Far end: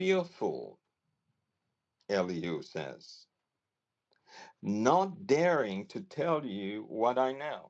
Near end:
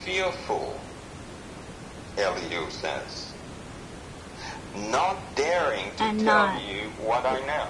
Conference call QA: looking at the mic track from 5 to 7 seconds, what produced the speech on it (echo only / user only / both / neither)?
both